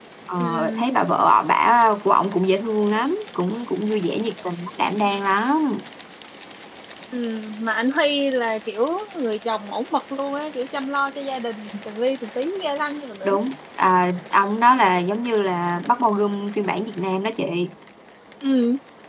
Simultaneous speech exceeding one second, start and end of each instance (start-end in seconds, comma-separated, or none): none